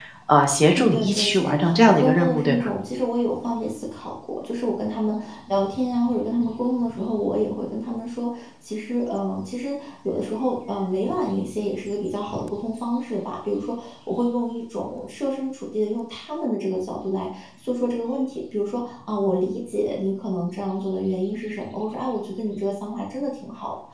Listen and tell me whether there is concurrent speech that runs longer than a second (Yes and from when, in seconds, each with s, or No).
Yes, from 0.6 s